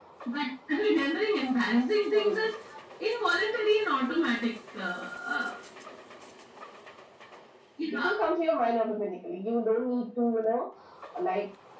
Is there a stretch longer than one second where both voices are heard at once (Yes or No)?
No